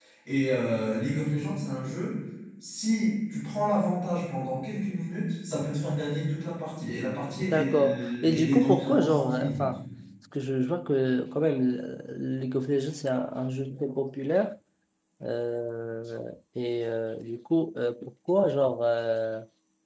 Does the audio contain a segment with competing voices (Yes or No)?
Yes